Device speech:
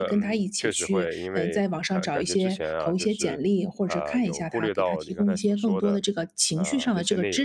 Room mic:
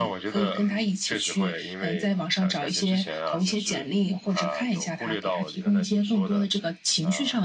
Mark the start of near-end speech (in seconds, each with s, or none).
none